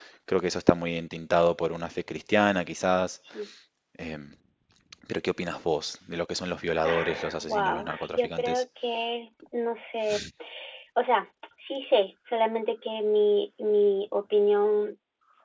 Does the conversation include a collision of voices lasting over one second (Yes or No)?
Yes